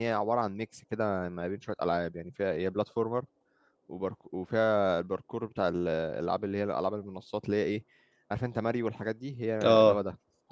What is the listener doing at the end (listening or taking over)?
listening